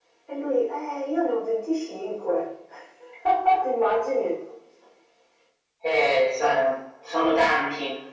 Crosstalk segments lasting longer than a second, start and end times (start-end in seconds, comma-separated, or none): none